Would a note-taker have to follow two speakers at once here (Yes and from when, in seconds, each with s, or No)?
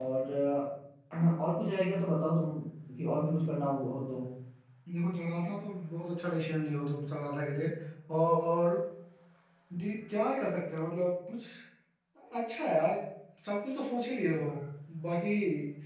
No